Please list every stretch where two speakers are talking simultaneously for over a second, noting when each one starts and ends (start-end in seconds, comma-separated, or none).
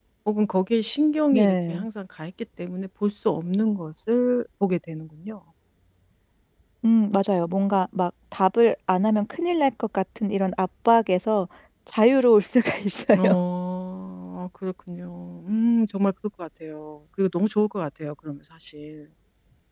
none